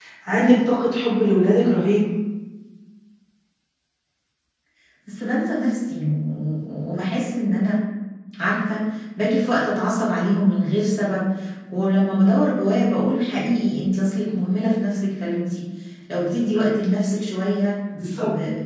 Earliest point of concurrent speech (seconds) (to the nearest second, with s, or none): none